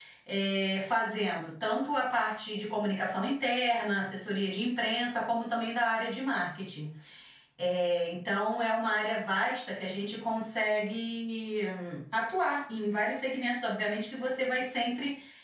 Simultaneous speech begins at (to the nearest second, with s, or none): none